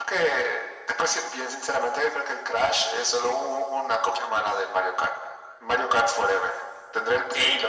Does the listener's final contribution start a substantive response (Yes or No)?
No